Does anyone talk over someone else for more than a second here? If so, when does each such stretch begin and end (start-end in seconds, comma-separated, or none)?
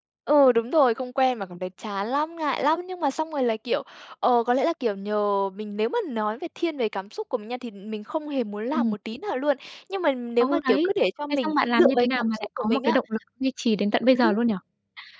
11.3-13.0